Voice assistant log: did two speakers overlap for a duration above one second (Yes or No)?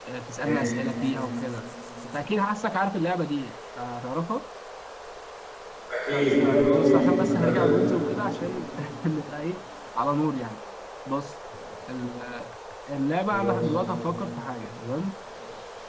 Yes